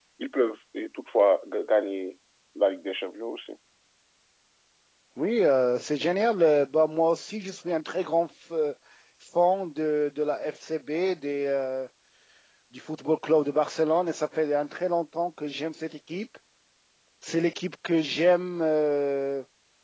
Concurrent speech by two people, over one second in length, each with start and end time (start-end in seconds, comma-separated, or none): none